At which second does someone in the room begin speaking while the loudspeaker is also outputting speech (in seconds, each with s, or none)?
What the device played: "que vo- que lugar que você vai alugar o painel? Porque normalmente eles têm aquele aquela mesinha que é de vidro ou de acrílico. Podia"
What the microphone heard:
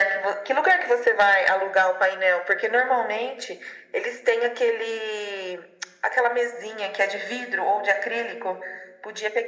none